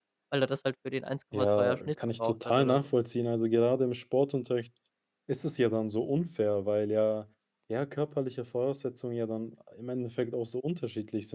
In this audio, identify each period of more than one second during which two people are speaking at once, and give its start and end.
1.3-2.9

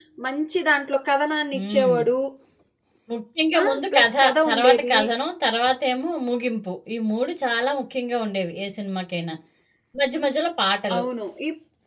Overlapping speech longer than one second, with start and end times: 3.6-5.0

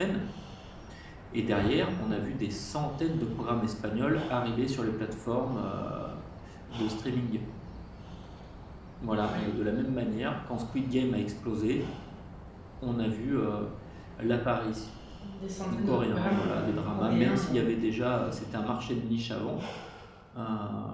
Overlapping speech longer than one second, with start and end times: 15.8-17.4

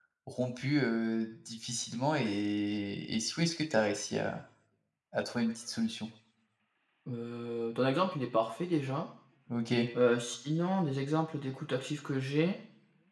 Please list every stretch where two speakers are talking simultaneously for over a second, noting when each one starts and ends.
none

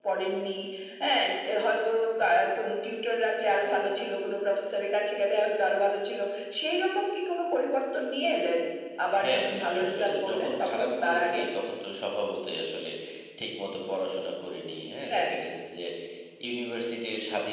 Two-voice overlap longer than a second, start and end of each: 9.2-11.4

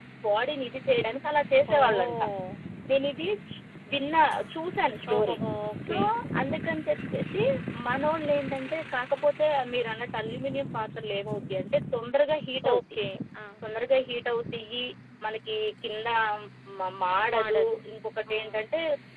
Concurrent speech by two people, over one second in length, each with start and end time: none

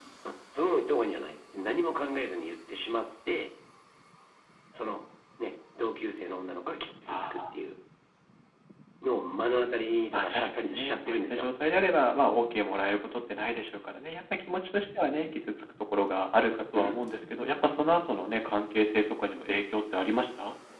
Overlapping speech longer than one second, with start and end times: 10.1-11.5

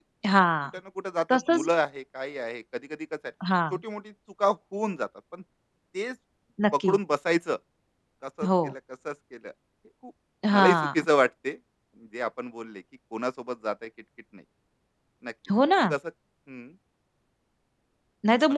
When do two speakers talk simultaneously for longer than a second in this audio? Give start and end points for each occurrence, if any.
none

